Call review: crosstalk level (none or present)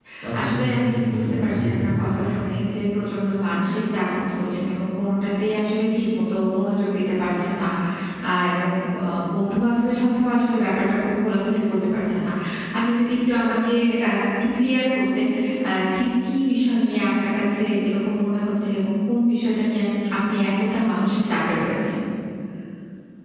present